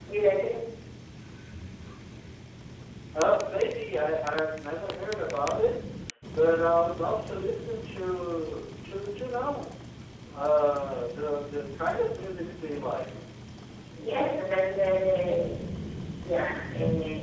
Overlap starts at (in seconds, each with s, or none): none